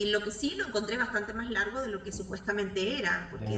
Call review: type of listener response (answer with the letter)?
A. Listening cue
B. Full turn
A